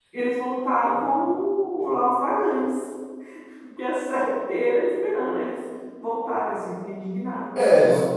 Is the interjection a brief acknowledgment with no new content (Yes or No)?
No